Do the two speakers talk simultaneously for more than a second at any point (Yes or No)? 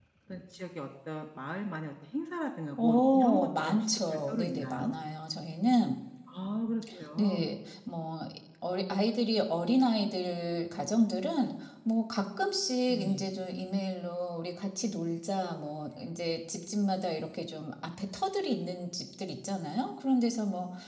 Yes